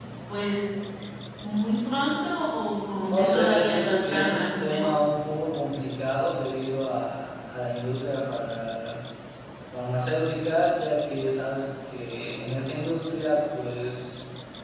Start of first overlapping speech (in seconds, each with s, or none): 3.1 s